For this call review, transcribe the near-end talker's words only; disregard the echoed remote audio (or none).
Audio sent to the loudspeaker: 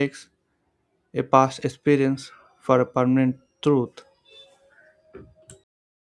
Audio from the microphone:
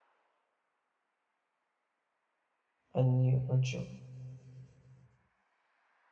un- unsure.